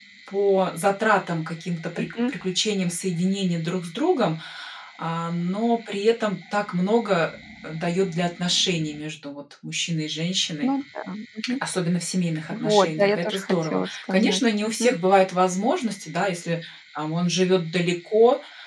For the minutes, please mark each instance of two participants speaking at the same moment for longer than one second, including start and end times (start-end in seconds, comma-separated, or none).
12.5-15.0